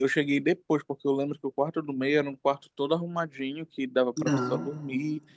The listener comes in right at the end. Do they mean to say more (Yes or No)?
No